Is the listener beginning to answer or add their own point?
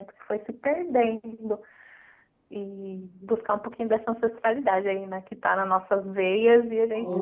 Yes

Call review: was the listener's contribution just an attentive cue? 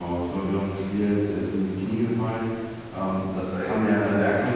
Yes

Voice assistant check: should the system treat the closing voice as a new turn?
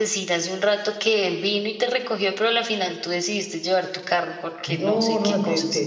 Yes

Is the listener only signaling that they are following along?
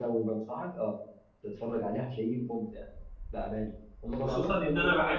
No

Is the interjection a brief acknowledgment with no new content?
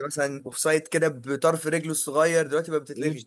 No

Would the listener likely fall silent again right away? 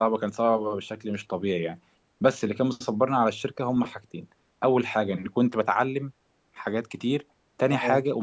Yes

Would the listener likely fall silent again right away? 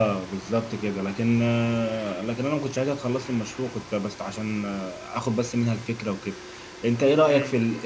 No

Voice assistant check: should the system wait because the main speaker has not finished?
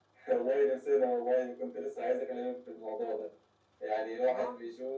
Yes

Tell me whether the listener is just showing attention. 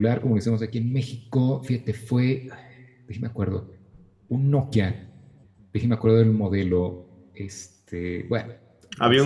No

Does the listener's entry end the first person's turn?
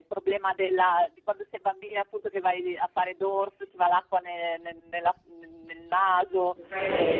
No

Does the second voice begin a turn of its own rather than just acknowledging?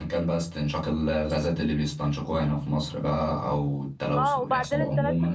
Yes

